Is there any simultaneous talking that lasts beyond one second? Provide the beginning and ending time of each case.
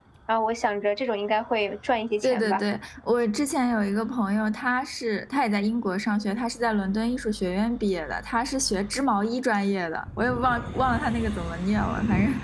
none

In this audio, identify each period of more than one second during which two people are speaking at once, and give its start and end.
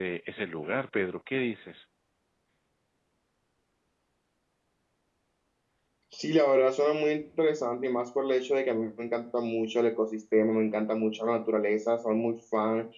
none

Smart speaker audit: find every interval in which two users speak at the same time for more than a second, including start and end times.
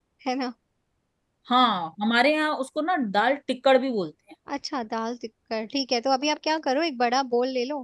none

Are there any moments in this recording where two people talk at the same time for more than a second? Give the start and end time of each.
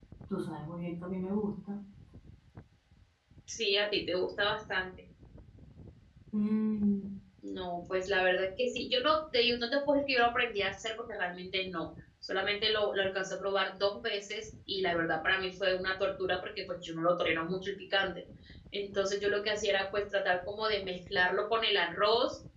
none

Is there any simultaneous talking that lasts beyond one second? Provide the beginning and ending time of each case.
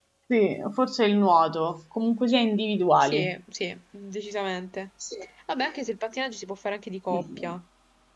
none

